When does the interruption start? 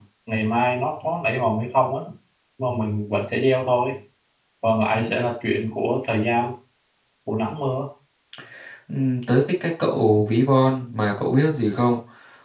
none

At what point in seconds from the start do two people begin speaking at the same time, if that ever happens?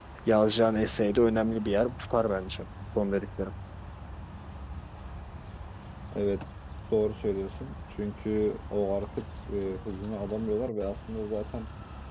none

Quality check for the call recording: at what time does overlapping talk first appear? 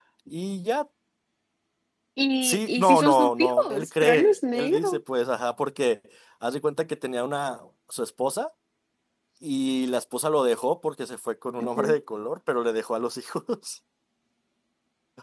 2.4 s

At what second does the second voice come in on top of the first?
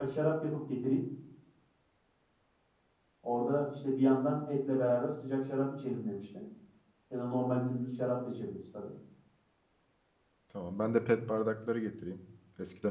none

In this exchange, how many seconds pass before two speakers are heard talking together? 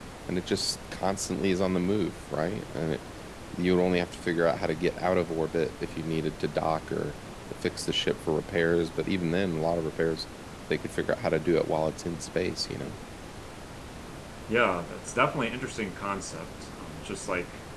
none

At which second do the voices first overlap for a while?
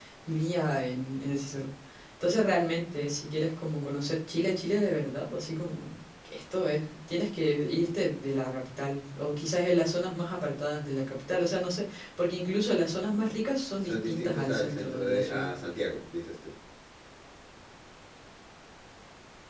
13.8 s

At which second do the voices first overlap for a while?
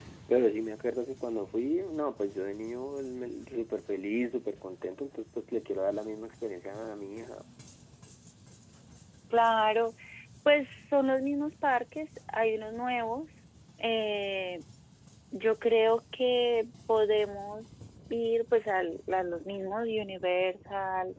none

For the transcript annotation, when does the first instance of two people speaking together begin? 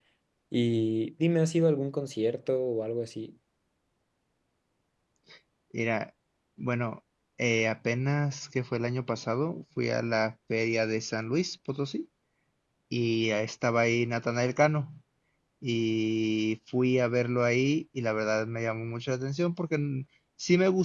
none

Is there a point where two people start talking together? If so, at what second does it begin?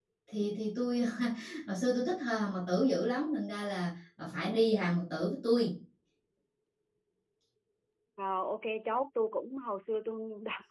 none

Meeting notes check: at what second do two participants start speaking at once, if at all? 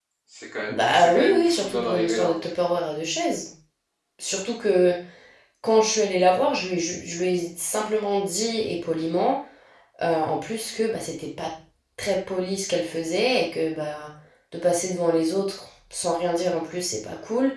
0.7 s

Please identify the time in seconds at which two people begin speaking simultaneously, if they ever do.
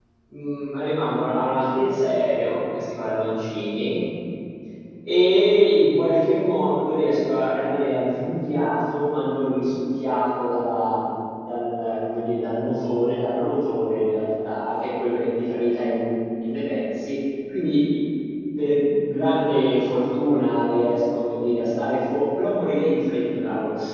none

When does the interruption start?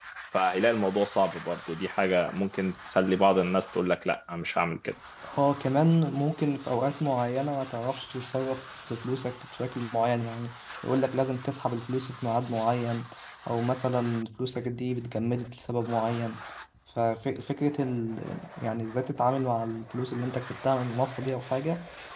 none

